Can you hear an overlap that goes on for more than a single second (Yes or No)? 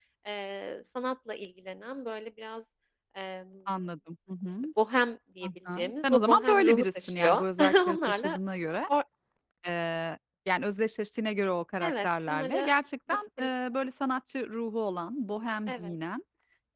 Yes